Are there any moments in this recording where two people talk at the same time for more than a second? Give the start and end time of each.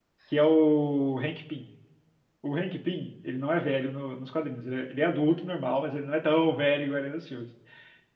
none

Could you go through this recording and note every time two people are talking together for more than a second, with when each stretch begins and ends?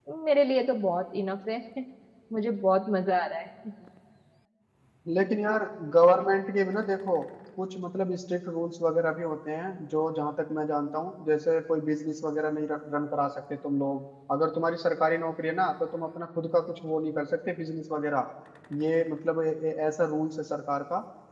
none

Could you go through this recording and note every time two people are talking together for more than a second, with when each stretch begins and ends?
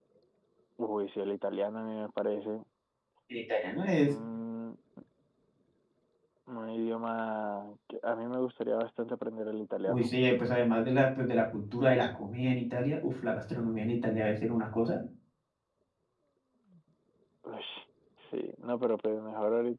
none

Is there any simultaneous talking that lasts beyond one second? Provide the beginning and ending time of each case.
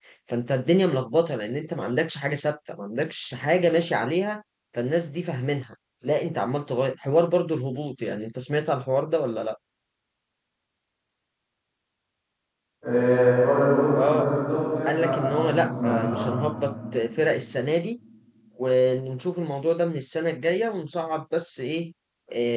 14.9-16.3

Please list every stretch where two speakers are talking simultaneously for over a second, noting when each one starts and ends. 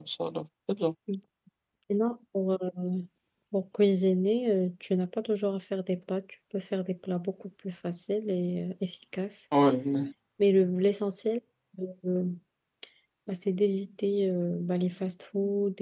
none

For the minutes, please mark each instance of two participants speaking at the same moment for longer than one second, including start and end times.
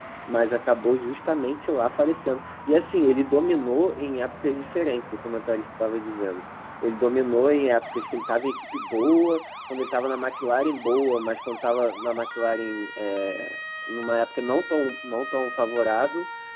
none

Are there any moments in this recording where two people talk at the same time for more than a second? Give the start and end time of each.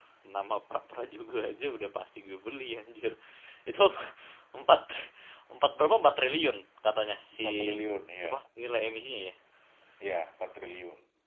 none

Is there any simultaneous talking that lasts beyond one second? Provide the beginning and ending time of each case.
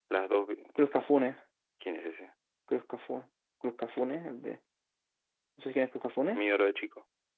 none

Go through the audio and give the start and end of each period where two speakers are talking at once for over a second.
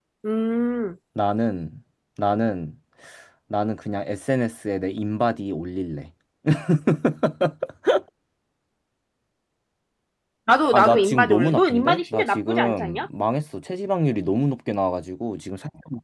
10.7-13.1

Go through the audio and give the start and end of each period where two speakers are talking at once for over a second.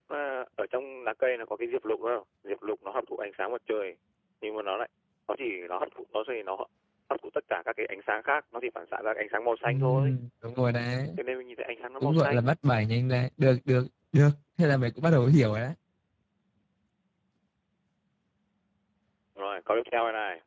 none

